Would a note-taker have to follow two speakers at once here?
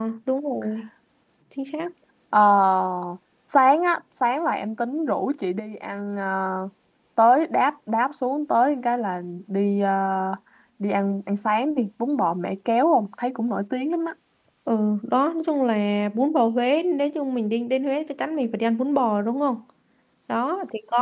No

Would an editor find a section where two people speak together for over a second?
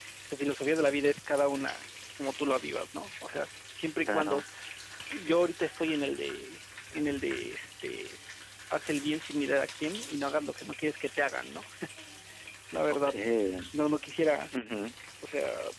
No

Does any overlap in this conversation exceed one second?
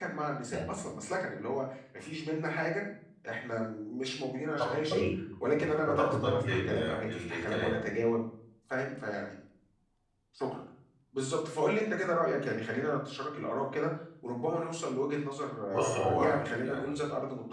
Yes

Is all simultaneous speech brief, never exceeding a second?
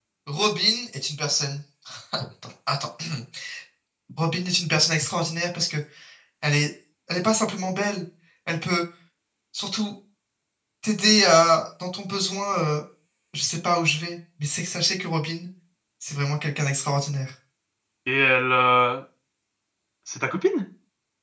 Yes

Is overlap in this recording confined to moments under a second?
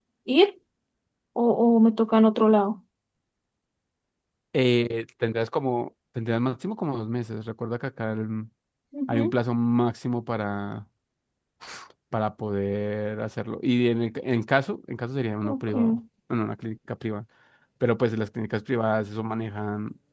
Yes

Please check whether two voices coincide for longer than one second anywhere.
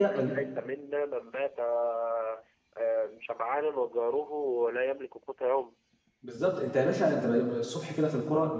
No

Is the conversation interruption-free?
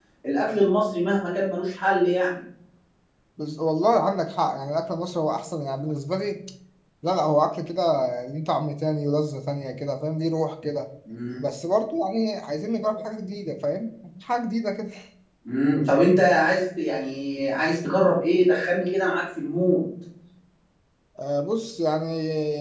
Yes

